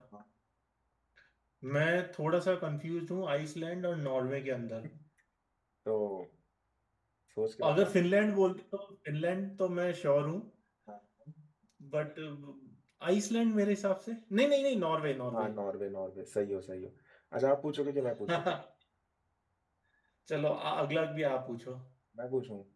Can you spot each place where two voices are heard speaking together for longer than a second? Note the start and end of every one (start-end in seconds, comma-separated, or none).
none